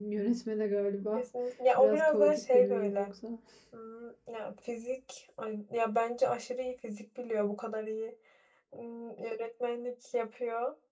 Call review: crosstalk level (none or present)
present